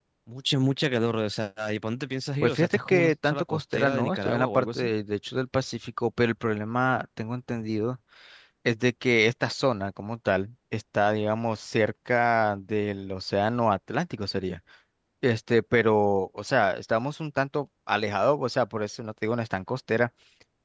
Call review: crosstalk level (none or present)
present